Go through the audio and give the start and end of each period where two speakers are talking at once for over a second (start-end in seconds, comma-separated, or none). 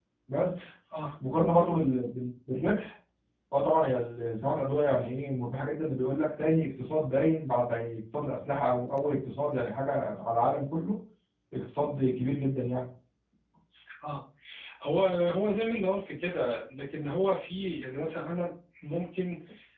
none